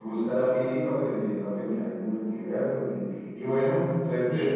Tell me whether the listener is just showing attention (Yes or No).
Yes